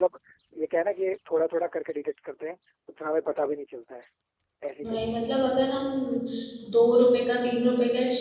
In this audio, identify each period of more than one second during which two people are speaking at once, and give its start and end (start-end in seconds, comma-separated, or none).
none